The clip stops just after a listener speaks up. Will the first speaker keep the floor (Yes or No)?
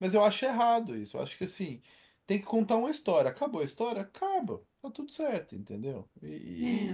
Yes